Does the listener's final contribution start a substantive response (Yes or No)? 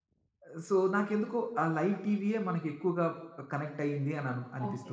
Yes